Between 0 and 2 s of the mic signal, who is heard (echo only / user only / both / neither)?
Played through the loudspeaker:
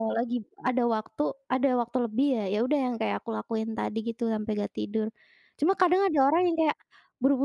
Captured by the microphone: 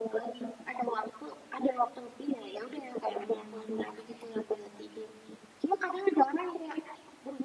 echo only